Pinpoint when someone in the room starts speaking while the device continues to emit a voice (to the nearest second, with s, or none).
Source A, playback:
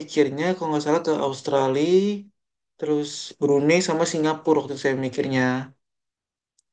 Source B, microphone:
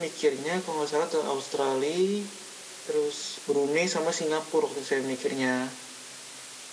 none